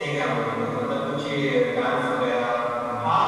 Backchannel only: No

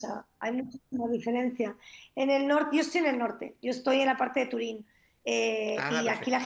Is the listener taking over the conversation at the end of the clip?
No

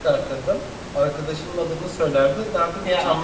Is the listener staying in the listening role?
Yes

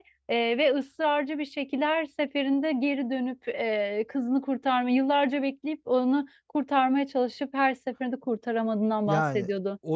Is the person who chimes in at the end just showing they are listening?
No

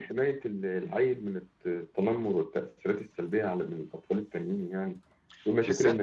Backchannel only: No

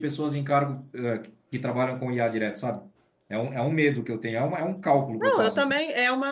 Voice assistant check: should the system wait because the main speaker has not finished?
No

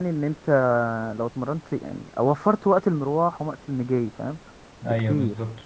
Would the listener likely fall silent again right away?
No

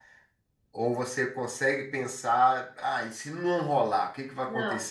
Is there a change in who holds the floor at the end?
Yes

